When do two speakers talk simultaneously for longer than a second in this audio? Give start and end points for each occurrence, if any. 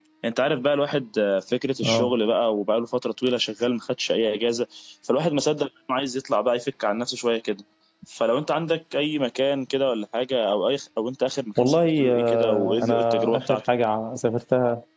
11.6-13.6

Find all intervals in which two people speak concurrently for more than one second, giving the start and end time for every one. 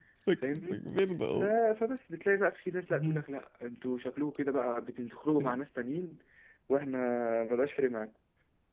none

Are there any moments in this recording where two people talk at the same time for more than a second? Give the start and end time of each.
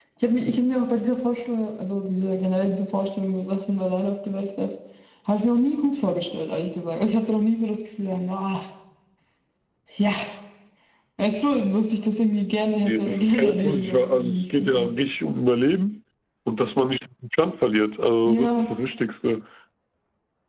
12.8-14.9

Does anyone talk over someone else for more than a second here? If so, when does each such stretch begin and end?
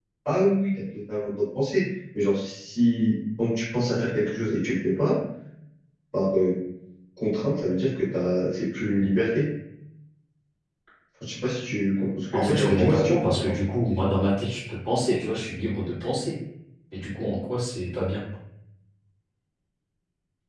12.3-13.6

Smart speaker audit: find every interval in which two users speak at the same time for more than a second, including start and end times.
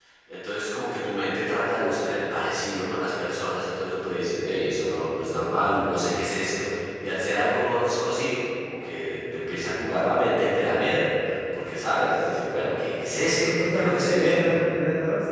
13.3-14.6

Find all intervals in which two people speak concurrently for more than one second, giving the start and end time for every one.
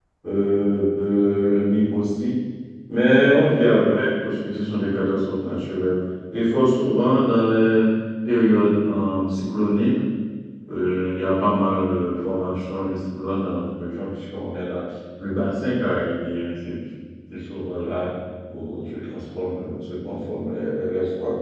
none

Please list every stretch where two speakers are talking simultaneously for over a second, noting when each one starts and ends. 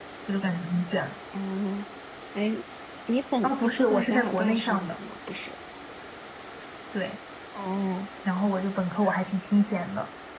3.4-5.0

